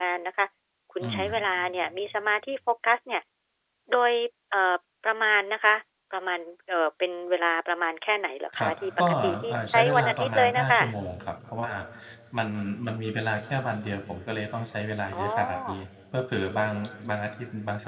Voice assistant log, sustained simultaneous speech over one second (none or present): present